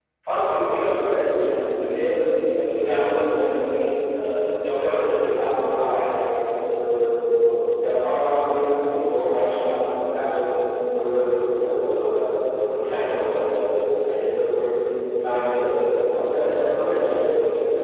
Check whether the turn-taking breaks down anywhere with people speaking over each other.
Yes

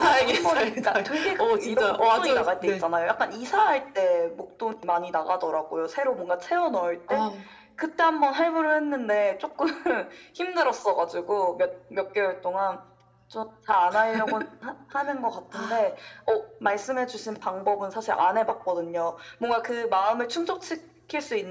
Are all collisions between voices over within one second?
No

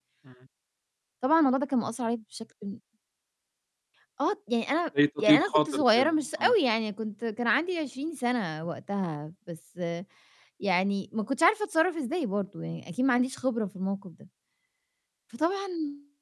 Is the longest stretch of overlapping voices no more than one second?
No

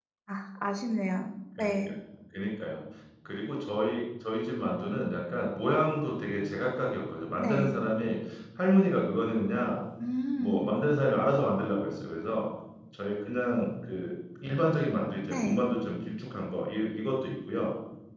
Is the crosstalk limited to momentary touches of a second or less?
Yes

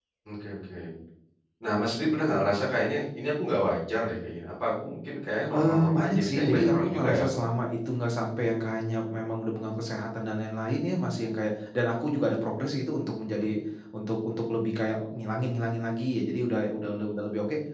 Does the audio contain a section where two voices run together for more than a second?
Yes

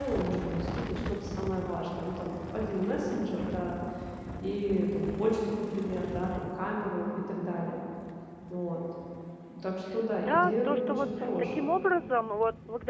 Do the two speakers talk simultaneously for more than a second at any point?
Yes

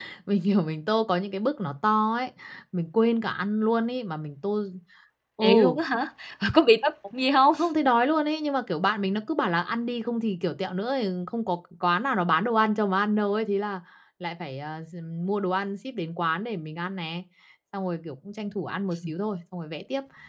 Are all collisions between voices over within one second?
Yes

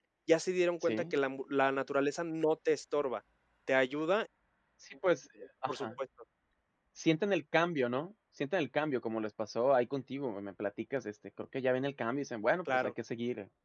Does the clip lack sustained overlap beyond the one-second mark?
Yes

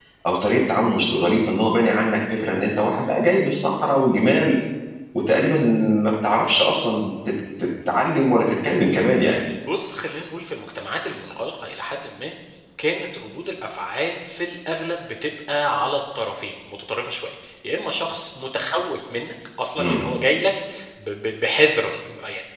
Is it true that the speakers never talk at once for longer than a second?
Yes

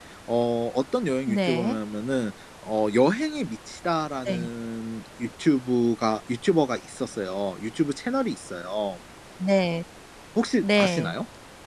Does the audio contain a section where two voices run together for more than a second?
No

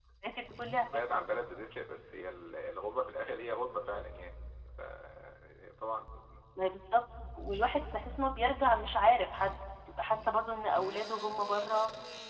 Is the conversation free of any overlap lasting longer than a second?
Yes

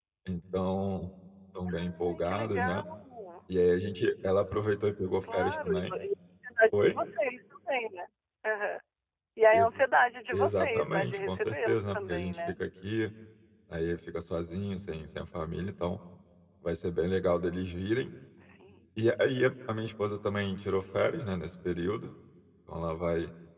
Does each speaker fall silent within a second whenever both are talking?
No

